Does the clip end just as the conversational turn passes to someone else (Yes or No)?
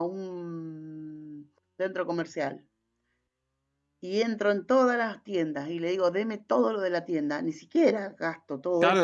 Yes